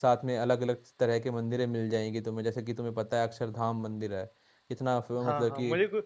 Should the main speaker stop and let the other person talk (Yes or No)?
Yes